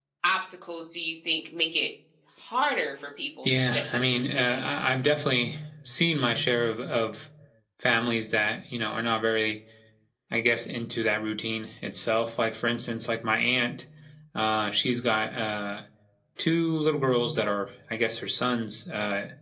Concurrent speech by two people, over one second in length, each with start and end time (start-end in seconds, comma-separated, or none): 3.4-4.7